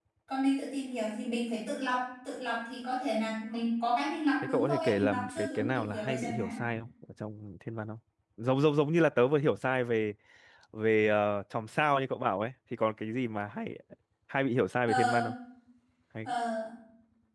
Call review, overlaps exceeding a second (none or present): present